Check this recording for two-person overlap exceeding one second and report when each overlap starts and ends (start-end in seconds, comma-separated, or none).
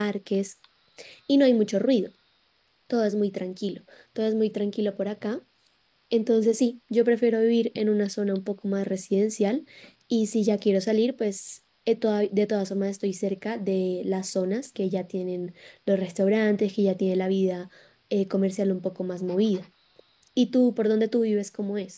none